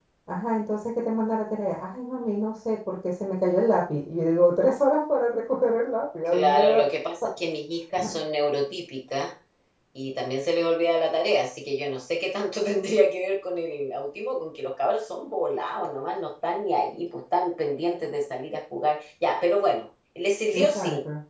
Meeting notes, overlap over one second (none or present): none